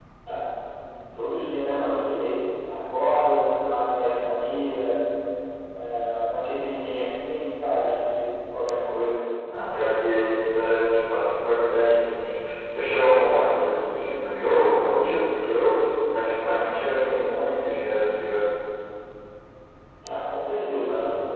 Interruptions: none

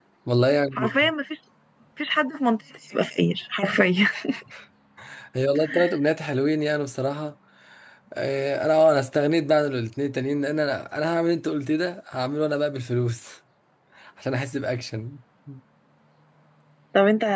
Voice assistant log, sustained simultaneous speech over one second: none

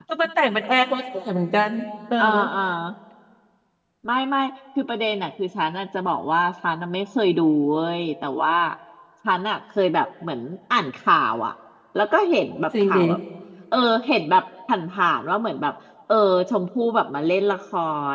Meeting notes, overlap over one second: none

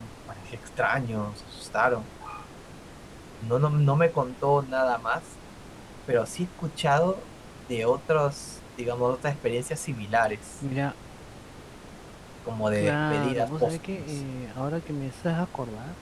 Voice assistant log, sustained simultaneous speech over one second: present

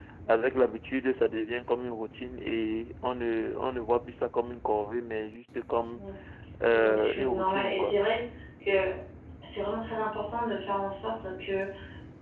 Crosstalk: present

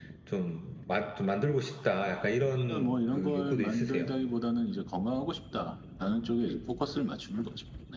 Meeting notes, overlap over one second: present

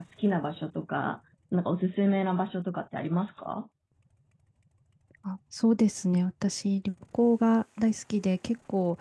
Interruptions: none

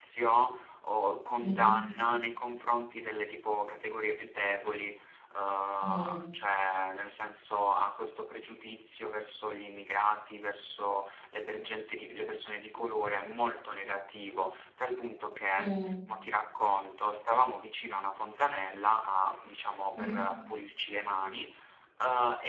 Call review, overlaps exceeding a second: none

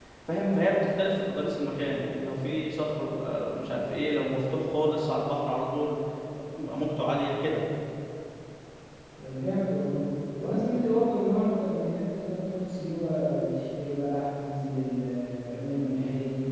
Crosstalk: none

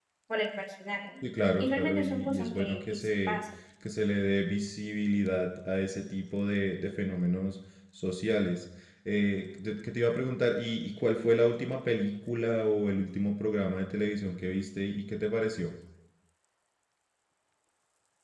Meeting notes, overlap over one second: present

